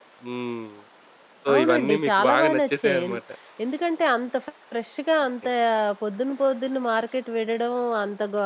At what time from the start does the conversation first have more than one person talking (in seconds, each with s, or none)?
1.5 s